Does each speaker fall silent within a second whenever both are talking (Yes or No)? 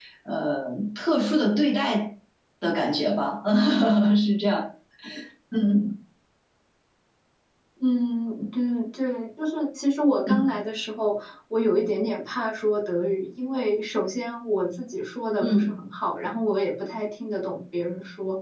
Yes